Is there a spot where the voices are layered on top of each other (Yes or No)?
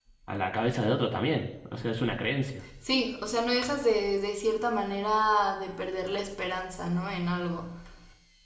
No